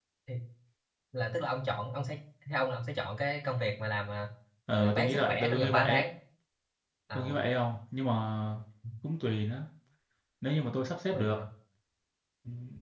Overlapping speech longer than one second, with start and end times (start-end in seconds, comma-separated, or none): 4.7-6.0